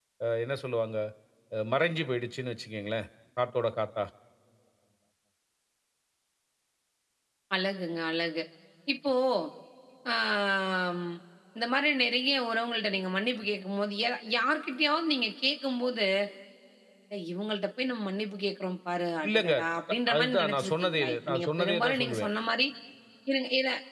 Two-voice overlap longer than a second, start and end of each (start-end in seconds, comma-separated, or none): 20.1-22.3